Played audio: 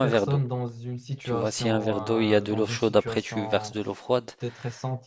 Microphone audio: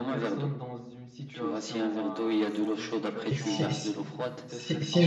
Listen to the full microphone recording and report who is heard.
both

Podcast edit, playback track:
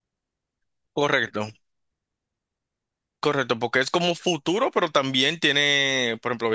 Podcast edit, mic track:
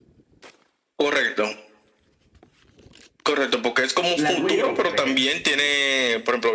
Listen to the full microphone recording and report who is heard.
both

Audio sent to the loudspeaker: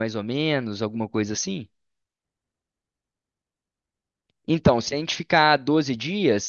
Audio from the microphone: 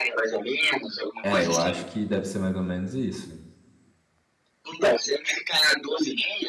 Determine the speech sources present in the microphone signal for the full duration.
both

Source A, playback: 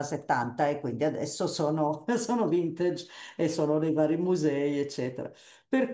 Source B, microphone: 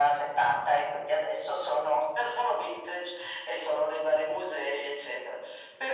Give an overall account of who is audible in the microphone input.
echo only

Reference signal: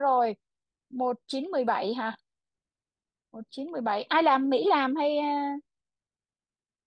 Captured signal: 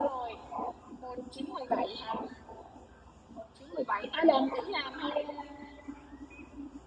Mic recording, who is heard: echo only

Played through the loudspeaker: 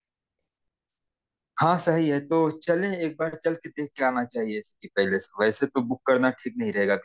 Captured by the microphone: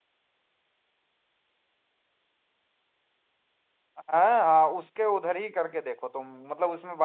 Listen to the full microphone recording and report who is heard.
user only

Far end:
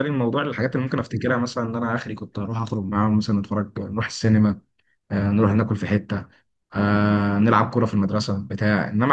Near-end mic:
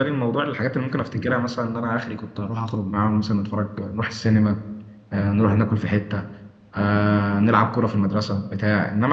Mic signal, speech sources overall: echo only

